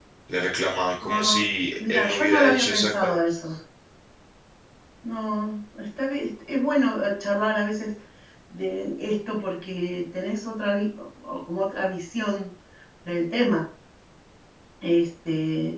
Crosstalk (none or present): present